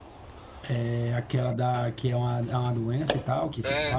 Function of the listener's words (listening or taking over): taking over